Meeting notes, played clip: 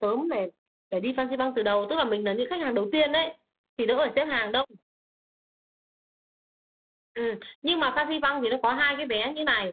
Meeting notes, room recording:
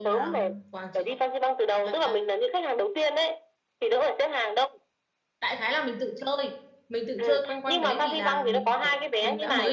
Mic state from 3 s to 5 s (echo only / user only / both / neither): echo only